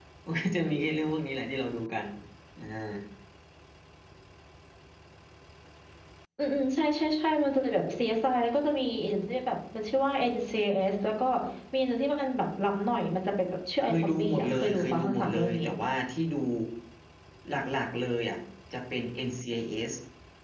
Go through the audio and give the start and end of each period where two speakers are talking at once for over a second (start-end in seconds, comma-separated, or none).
13.8-15.6